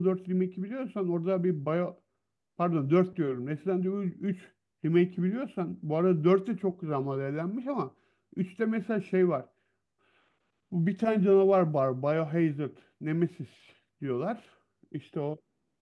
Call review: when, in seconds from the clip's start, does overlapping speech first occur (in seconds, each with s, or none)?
none